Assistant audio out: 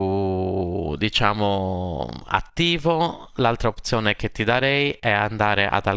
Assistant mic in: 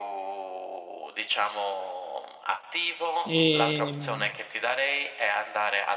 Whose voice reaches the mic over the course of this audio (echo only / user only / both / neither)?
both